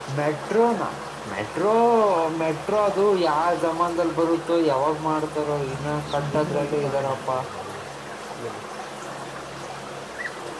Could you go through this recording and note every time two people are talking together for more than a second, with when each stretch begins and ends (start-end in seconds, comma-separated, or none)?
6.1-7.4